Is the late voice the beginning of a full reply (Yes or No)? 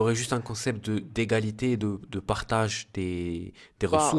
Yes